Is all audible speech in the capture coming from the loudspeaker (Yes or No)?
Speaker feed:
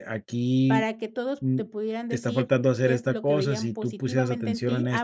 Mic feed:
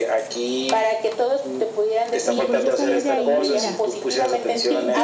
No